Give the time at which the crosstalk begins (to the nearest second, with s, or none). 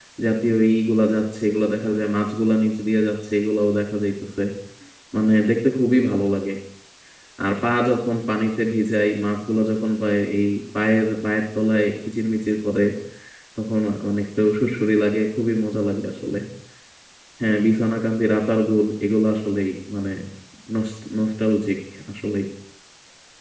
none